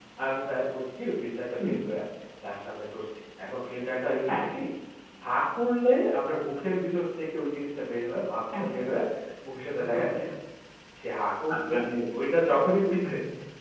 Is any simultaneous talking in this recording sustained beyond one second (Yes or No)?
No